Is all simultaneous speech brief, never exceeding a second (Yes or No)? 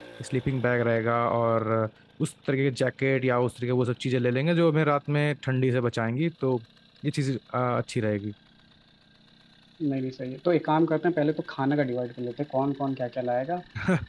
Yes